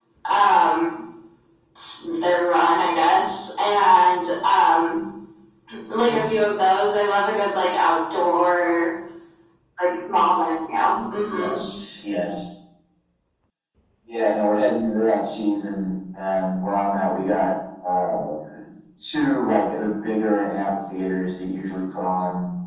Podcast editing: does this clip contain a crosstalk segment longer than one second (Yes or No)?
No